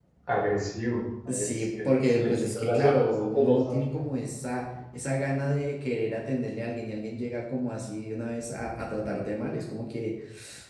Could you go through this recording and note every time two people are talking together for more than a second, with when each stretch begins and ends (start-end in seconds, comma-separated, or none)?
1.3-3.9